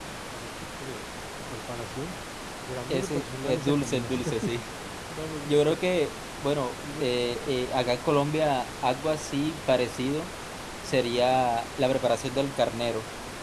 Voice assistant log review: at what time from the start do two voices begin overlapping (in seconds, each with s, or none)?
2.9 s